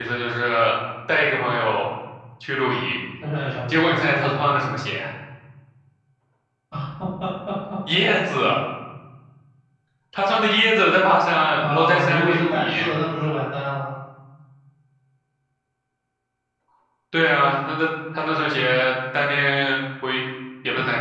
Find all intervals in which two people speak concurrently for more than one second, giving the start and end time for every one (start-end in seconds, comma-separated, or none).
11.6-12.9